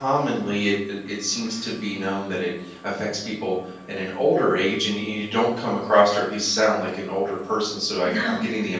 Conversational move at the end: listening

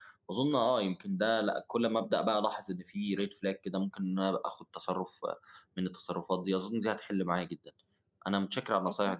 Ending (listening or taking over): listening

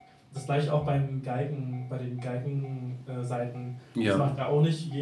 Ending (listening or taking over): listening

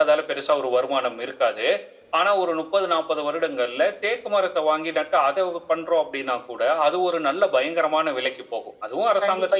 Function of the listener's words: taking over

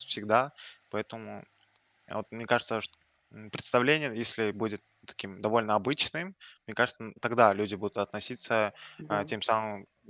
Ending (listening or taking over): listening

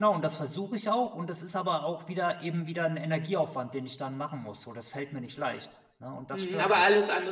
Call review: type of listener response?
taking over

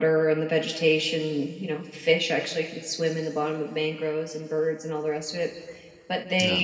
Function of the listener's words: listening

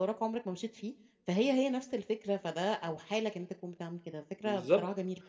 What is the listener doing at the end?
taking over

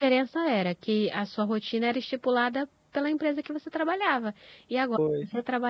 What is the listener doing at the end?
listening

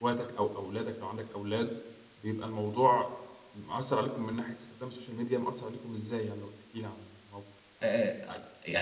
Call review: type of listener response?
taking over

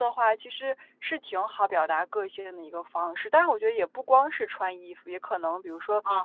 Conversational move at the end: listening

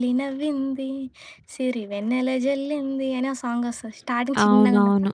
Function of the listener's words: taking over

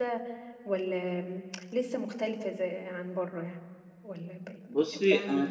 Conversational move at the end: taking over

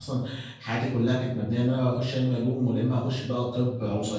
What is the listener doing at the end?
taking over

